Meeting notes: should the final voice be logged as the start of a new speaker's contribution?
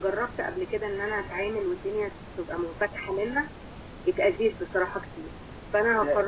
Yes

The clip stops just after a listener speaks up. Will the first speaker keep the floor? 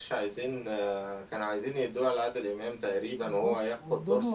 No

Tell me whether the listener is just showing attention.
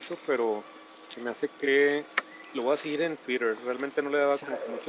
Yes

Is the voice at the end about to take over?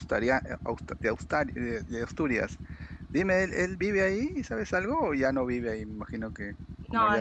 Yes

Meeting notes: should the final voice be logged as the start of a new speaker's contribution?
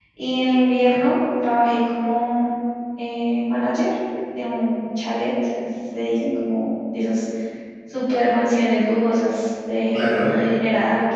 No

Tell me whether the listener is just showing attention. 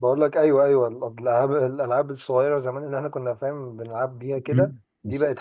No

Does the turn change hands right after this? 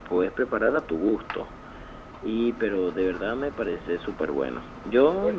No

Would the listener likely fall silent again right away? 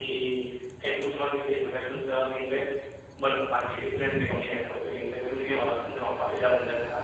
Yes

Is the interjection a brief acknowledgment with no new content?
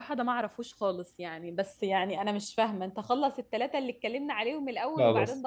Yes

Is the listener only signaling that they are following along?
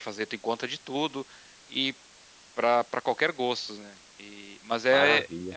Yes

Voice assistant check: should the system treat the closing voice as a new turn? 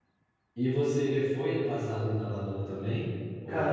Yes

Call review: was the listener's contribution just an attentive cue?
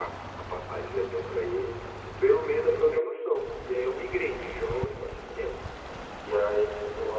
Yes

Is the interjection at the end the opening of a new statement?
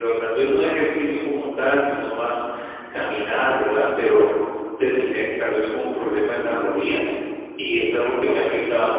No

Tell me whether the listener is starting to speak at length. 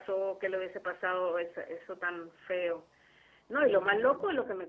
No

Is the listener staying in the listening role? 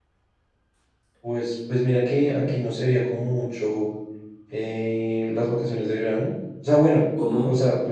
Yes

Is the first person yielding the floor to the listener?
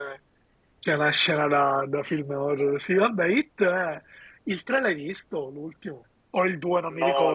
Yes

